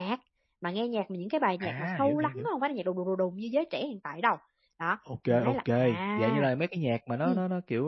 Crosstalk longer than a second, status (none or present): present